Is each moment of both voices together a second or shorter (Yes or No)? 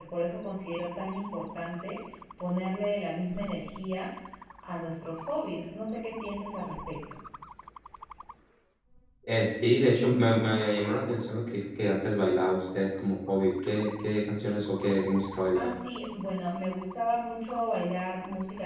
Yes